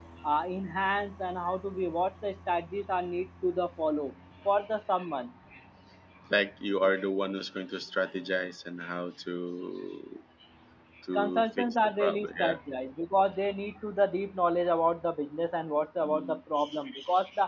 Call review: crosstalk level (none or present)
present